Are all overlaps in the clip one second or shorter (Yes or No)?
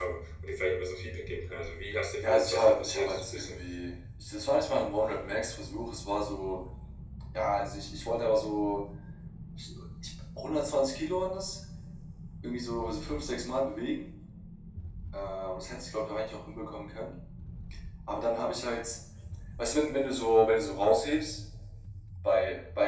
No